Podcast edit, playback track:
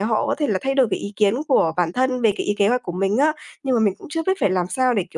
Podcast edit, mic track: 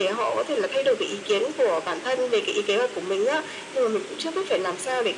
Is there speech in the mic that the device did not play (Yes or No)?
No